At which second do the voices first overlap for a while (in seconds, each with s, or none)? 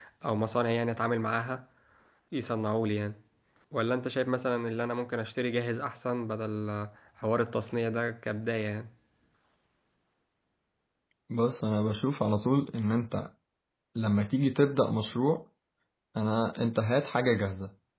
none